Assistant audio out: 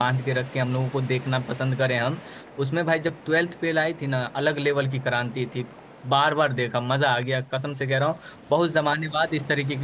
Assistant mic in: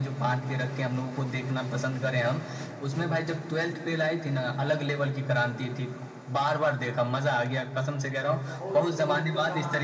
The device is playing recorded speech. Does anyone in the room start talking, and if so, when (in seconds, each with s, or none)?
8.5 s